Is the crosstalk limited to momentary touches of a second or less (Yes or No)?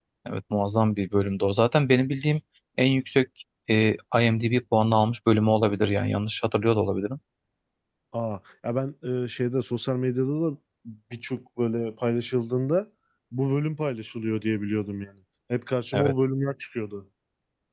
Yes